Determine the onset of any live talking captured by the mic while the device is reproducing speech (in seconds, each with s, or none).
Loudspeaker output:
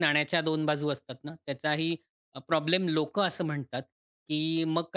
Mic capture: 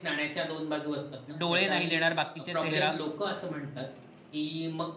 1.4 s